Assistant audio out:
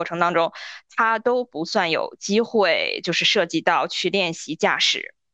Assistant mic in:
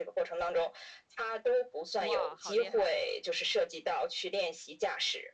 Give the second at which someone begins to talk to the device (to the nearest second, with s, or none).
2 s